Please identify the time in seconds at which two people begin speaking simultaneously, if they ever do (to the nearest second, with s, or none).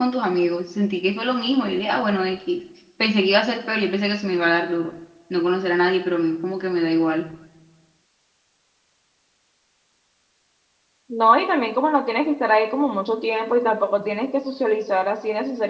none